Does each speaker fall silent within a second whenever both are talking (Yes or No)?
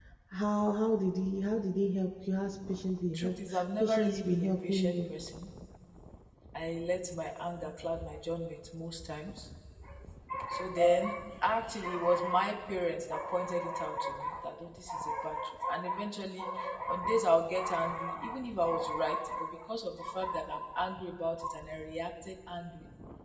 No